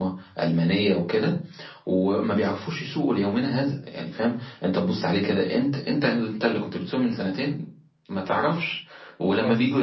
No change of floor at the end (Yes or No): Yes